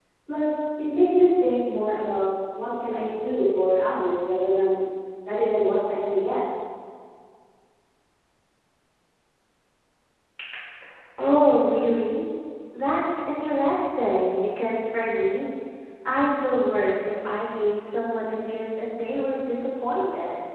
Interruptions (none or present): none